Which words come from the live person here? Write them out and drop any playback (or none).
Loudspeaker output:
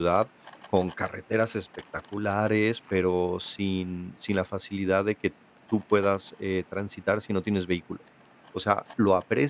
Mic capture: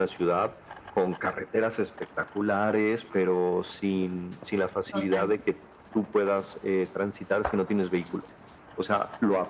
Total,